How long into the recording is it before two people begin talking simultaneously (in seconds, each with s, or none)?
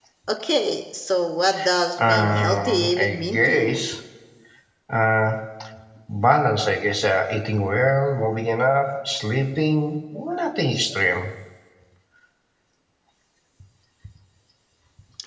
2.0 s